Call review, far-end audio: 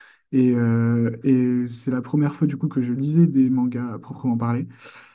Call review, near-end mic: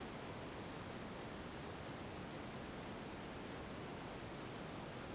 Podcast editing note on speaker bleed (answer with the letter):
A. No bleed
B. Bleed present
A